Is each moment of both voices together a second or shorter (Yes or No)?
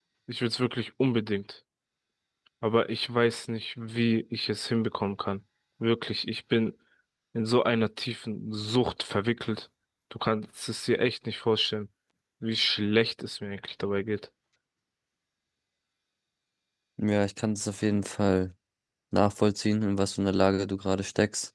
Yes